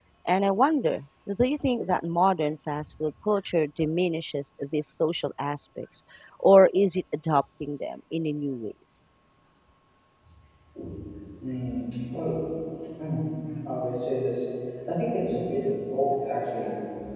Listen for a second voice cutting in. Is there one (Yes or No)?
No